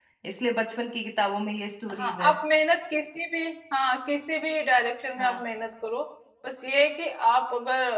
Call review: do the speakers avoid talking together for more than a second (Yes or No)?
Yes